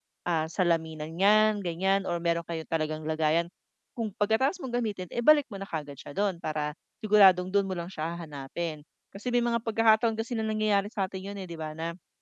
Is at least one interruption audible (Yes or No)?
No